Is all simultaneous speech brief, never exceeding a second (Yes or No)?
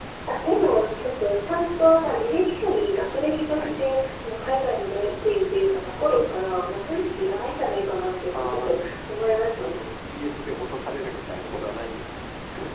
Yes